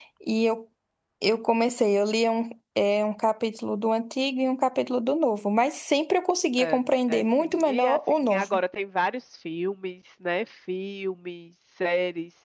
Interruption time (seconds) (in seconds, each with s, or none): 6.6 s